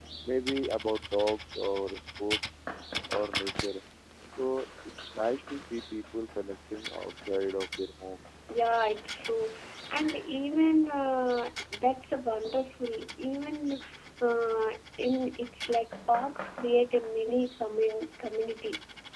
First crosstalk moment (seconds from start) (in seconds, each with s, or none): none